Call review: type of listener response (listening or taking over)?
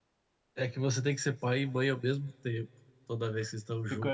taking over